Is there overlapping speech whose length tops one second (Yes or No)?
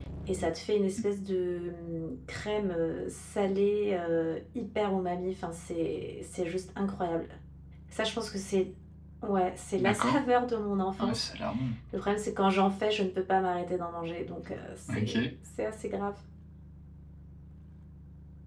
No